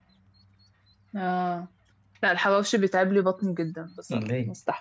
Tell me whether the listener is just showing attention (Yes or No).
Yes